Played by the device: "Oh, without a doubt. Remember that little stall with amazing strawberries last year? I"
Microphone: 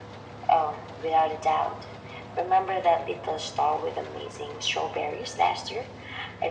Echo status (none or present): present